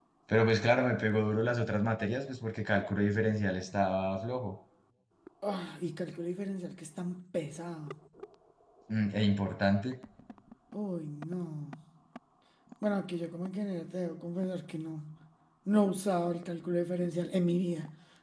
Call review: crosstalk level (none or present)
none